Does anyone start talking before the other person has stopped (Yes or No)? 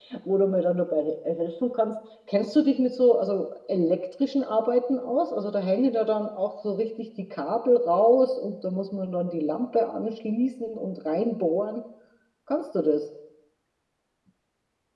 No